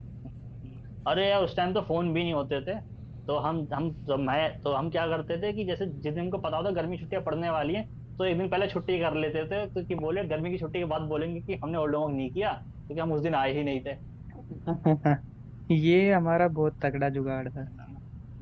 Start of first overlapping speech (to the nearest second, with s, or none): none